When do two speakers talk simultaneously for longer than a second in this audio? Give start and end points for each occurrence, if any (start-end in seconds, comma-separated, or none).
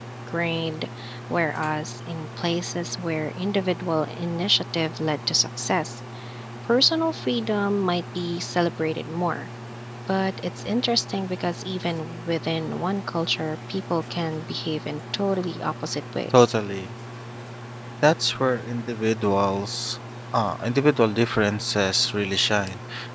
none